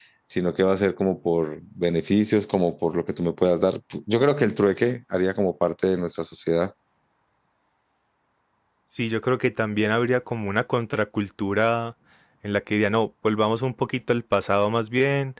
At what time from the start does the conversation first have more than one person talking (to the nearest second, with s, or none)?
none